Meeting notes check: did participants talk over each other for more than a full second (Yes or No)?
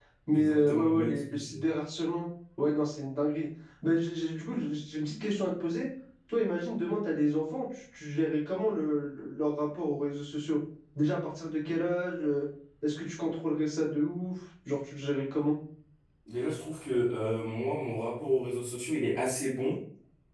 Yes